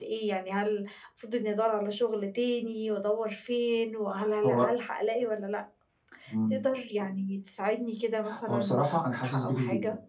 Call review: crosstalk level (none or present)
present